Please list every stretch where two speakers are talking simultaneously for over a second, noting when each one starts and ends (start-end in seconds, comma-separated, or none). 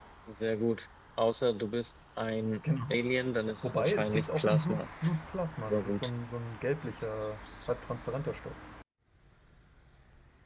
3.6-4.8